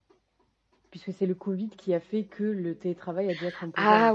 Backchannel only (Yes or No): No